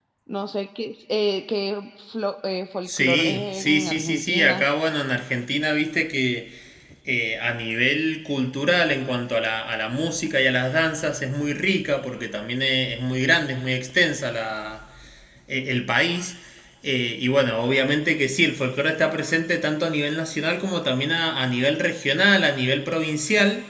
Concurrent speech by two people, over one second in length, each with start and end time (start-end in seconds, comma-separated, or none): 2.9-4.7